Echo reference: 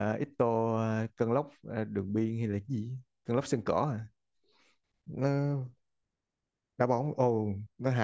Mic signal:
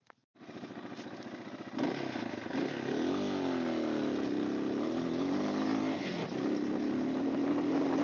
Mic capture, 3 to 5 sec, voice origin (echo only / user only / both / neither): neither